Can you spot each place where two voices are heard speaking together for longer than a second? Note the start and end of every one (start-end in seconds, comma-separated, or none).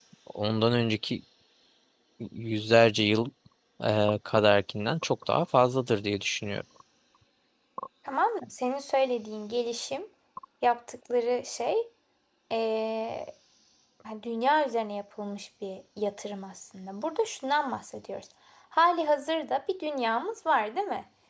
none